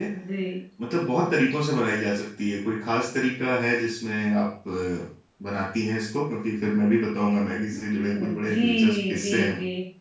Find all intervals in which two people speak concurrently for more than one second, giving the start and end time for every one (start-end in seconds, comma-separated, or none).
8.2-9.5